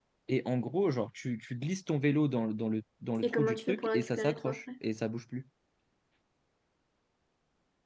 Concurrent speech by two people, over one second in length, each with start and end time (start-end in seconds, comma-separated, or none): 3.2-4.6